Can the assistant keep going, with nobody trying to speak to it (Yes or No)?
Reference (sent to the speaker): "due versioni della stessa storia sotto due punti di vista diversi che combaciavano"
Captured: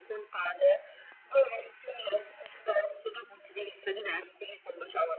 Yes